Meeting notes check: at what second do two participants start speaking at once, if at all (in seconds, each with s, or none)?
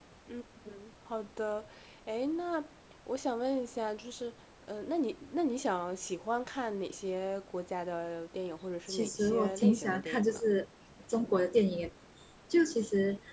8.9 s